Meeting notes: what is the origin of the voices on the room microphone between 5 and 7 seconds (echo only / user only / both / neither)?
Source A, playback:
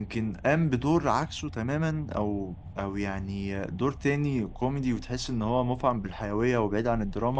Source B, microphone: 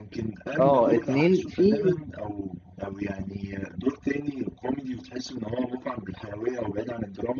echo only